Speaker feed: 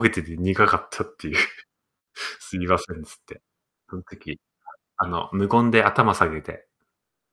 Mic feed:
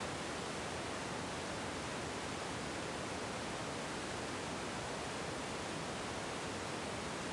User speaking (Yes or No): No